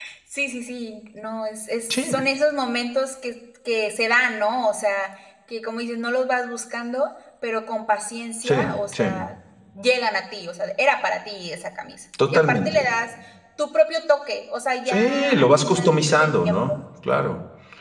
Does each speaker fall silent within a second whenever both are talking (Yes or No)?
No